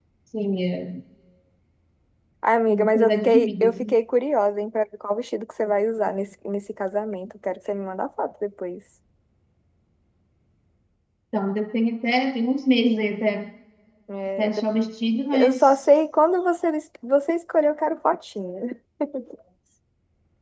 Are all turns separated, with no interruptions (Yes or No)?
No